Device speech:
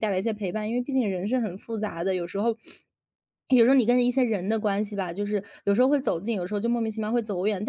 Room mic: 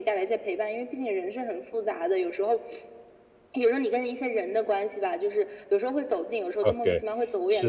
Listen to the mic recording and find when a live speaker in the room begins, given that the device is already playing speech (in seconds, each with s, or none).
6.6 s